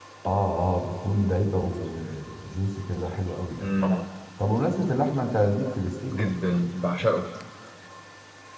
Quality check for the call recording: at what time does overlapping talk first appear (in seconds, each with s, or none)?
none